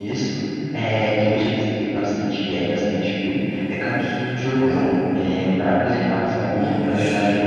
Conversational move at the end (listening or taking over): listening